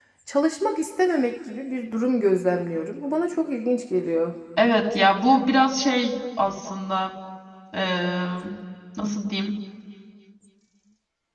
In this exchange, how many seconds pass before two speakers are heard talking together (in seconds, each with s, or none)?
none